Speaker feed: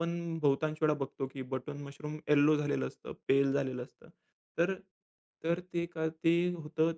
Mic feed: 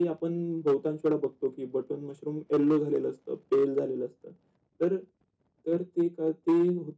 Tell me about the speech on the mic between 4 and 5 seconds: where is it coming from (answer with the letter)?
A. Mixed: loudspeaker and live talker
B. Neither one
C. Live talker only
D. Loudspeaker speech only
D